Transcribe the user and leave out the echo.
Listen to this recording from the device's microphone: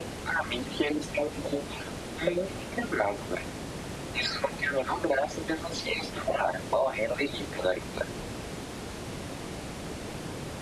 none

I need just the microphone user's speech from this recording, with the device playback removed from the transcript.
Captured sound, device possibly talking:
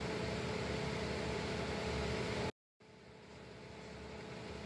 none

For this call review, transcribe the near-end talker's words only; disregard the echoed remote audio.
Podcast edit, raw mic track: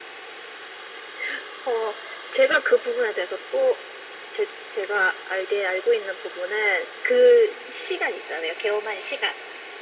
none

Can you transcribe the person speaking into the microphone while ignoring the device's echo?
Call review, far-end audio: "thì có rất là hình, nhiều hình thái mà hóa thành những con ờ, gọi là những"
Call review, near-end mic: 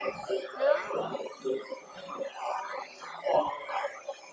nó

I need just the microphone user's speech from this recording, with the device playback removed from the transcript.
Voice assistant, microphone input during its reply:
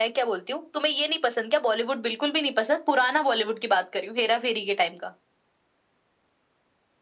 none

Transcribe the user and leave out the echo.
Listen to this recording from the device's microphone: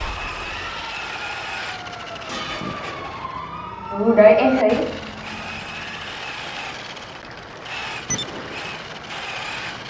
Ừ đấy, em thấy

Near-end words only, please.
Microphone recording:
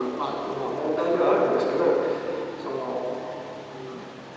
none

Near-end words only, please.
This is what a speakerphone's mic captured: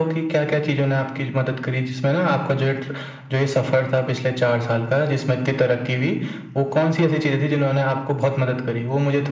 none

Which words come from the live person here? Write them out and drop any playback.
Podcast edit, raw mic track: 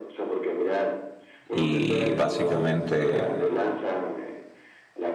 y básicamente

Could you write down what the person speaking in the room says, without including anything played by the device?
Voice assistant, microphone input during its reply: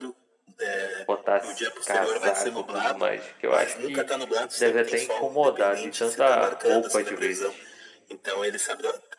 botar s- casaco e tudo mais, que eu acho que deve até incomodar de tanta roupa às vezes.

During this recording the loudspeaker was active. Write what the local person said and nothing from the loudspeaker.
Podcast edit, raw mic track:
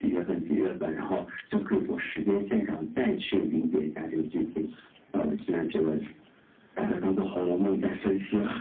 none

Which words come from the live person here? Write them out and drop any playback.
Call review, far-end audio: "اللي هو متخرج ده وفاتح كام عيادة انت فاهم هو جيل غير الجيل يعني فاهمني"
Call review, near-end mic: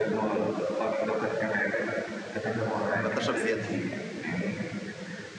آه، ملطشه بزياده

